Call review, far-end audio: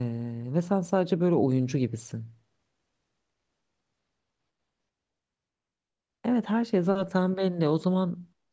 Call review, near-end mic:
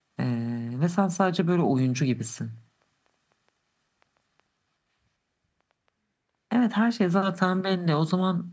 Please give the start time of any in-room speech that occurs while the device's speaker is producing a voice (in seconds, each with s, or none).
none